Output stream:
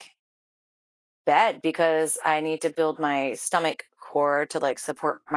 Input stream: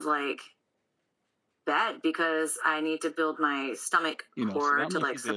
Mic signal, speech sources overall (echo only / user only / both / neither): both